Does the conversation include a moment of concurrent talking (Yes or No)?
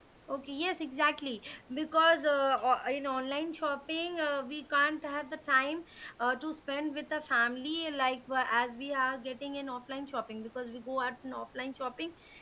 No